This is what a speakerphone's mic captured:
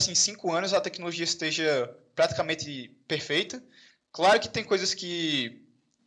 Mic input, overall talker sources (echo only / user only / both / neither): echo only